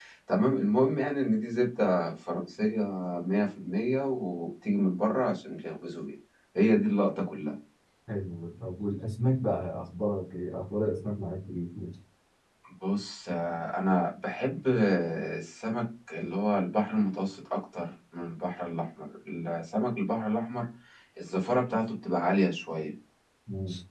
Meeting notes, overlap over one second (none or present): none